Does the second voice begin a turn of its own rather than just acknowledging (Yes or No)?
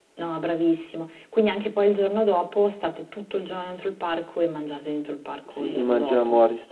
Yes